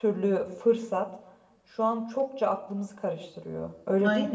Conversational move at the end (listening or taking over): taking over